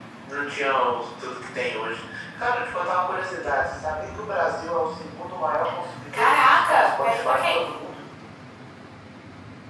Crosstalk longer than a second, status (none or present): present